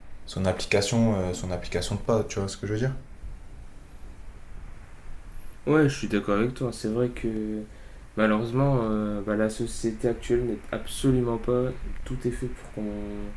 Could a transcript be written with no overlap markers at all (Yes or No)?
Yes